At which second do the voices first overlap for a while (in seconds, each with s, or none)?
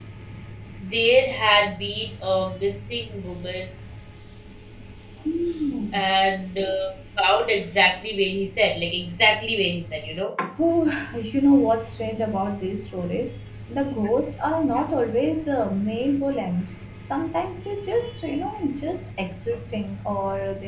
none